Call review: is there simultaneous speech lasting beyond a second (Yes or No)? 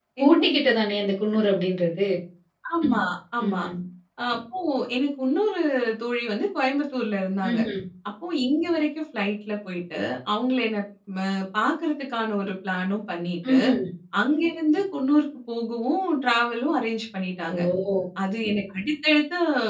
No